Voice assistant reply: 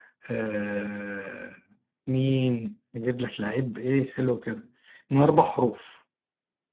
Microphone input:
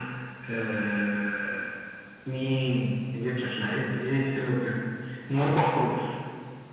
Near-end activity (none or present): none